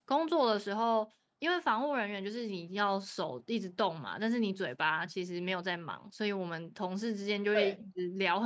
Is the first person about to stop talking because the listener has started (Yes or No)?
No